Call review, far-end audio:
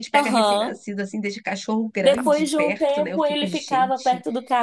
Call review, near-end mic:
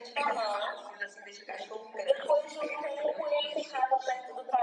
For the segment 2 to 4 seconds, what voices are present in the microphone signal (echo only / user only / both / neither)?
echo only